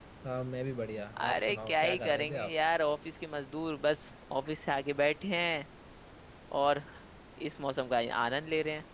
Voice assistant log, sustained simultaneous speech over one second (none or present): present